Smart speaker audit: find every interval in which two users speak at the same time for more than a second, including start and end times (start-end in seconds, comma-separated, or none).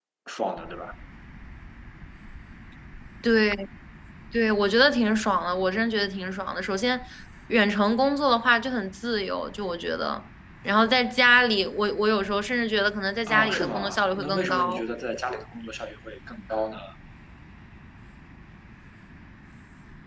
13.3-14.8